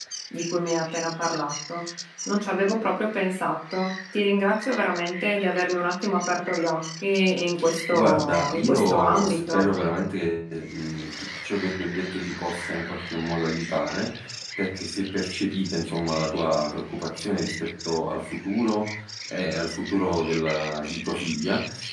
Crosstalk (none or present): present